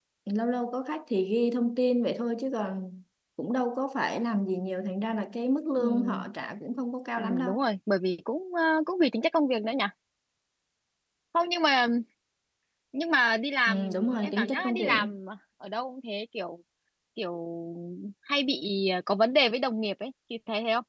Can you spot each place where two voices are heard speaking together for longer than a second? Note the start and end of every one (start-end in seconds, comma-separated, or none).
13.7-15.1